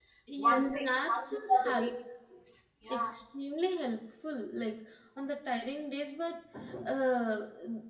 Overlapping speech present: Yes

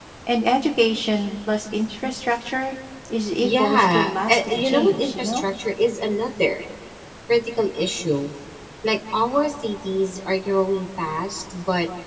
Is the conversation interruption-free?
No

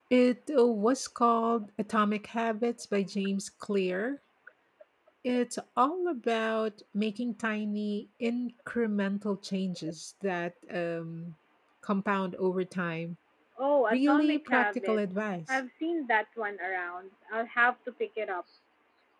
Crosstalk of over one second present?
Yes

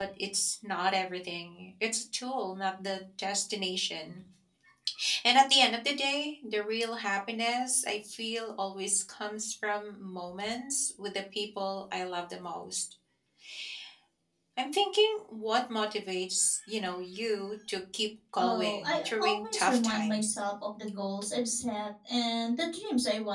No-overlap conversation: No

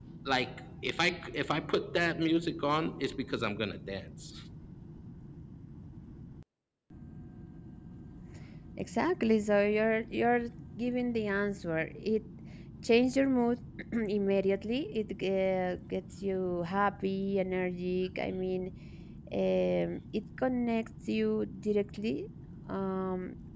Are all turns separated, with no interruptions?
Yes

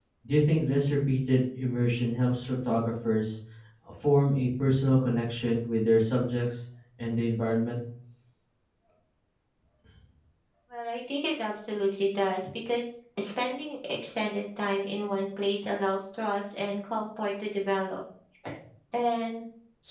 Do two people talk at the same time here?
No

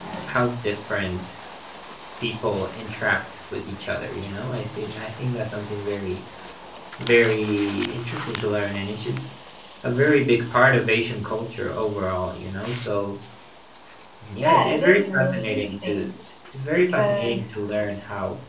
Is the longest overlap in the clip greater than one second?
Yes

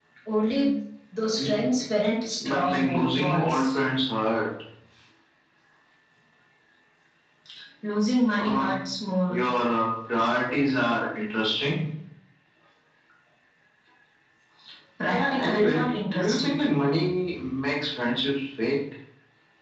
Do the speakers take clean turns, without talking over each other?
No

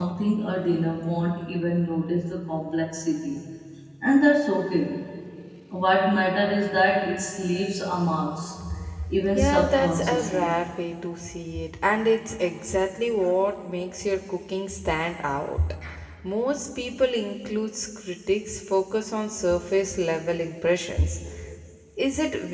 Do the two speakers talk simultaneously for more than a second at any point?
Yes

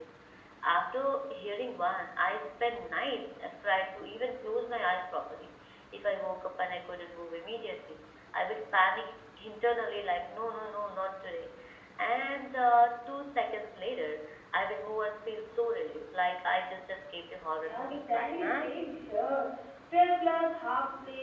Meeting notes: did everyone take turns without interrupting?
No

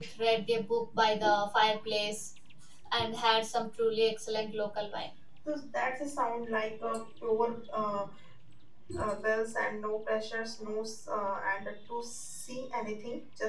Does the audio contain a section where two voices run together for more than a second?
No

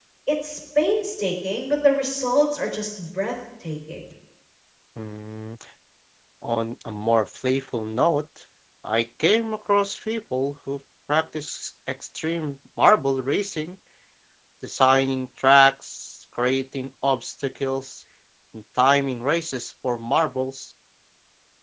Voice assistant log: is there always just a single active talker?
Yes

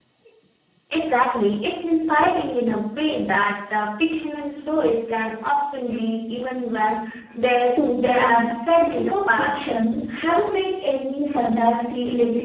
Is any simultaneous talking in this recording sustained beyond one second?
Yes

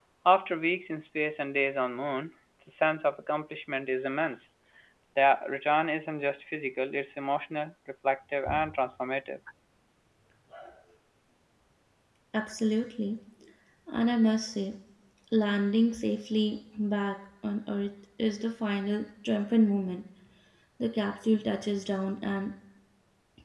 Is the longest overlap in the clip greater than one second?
No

